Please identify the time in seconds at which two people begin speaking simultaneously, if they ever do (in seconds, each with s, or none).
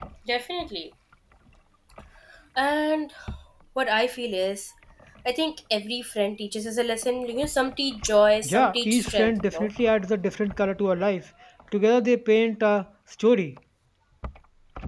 8.4 s